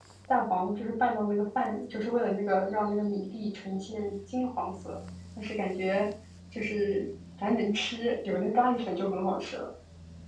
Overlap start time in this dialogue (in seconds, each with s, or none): none